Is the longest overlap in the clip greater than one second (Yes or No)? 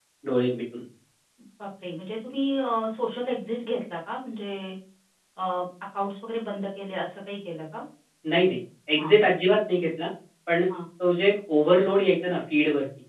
No